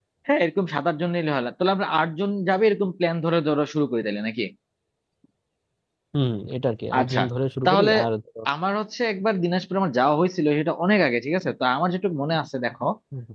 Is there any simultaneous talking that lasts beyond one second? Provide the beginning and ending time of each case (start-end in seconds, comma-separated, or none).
none